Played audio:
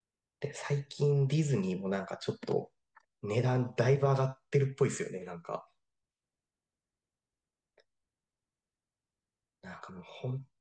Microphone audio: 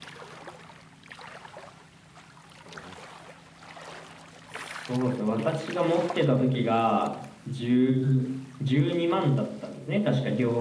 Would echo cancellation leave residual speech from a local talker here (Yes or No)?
Yes